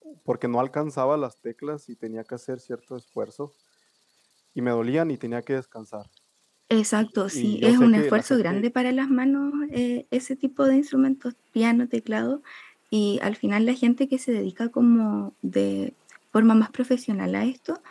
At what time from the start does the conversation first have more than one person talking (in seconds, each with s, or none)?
7.3 s